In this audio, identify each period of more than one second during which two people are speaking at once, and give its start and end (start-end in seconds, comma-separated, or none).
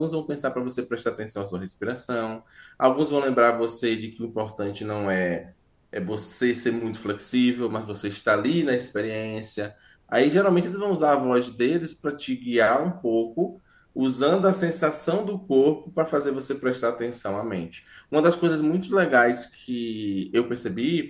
none